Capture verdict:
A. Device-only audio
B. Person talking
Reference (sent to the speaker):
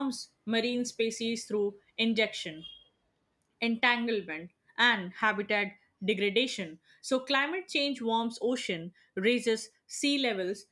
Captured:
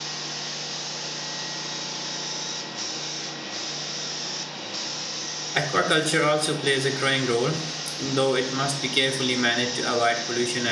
B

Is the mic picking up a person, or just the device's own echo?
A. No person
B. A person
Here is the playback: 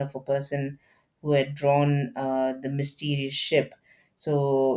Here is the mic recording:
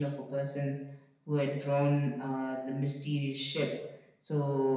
A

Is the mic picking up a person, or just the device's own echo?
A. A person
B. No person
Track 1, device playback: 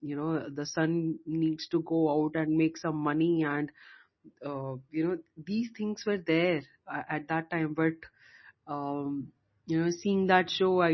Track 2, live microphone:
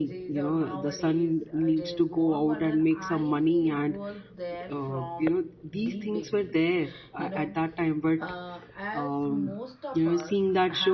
A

